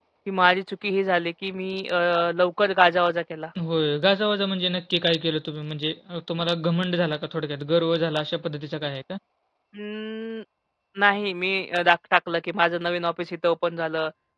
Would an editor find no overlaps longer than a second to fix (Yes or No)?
Yes